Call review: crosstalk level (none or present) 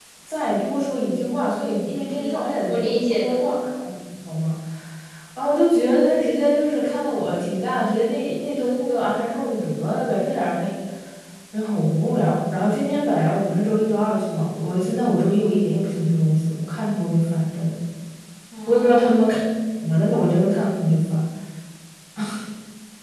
present